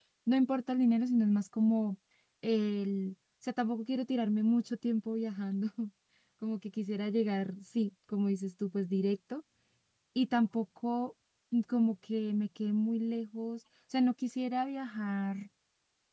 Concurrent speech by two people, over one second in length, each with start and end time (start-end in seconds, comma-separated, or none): none